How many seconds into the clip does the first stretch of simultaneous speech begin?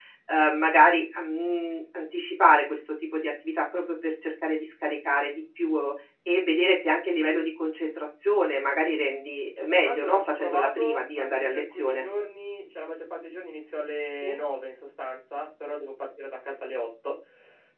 10 s

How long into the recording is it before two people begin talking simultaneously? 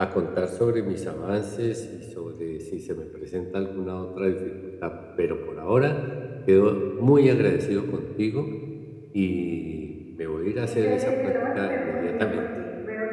11 s

